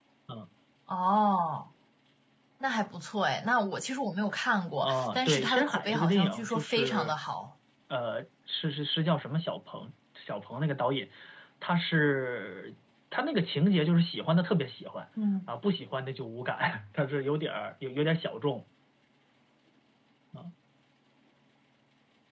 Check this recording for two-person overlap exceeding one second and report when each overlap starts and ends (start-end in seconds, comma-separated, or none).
4.8-7.1